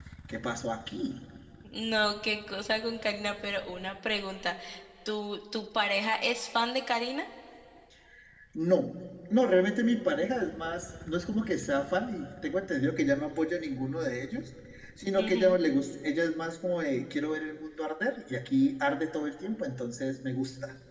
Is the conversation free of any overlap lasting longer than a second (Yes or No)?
Yes